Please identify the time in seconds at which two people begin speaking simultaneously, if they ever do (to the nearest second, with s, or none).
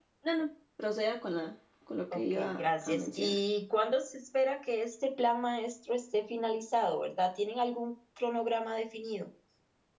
2 s